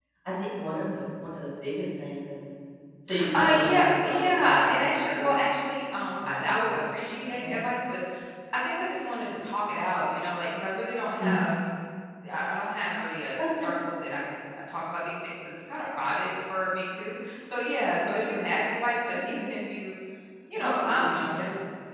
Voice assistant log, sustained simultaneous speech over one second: present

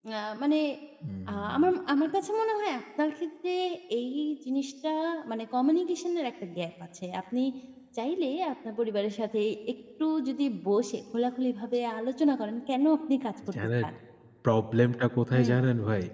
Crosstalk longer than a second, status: none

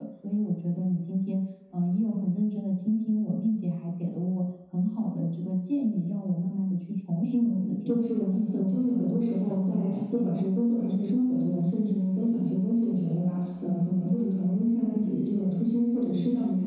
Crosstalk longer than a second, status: present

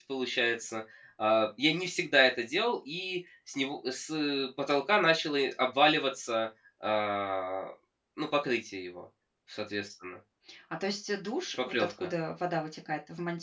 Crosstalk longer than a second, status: none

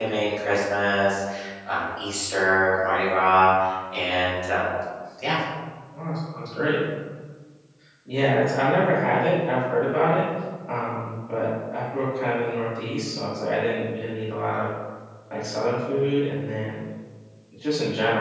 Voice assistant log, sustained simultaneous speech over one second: none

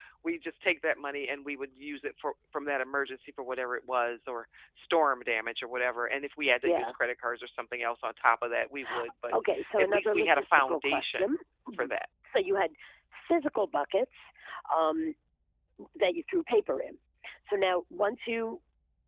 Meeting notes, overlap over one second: present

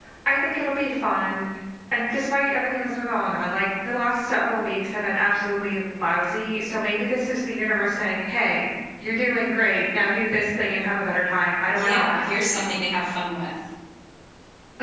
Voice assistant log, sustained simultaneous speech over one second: none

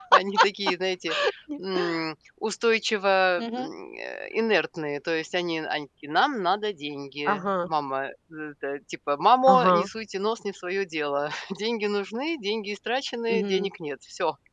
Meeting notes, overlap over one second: none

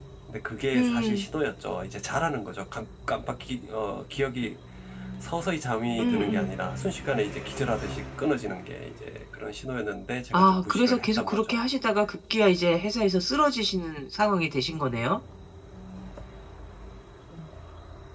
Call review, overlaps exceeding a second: present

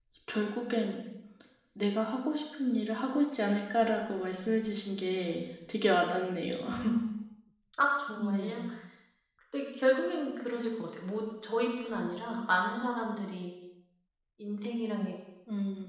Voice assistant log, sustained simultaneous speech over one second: none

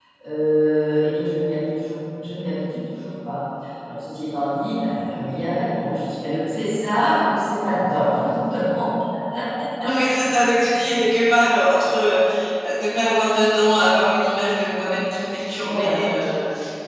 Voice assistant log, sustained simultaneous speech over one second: none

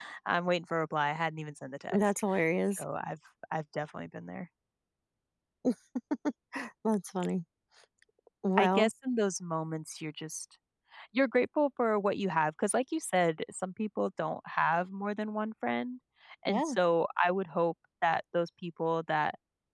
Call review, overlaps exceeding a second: none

